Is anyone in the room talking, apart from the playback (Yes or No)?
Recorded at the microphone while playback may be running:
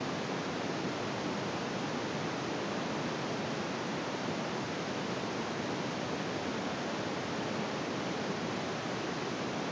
No